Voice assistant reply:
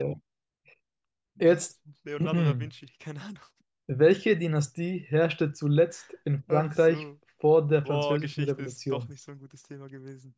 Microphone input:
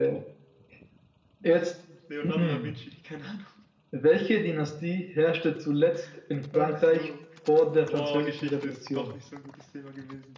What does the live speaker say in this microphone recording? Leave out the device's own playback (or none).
none